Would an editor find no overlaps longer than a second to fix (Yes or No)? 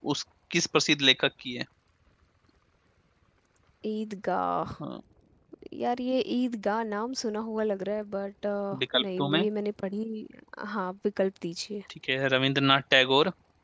Yes